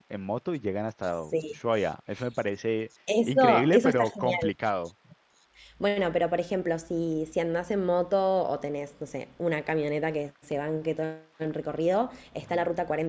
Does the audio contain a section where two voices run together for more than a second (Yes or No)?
Yes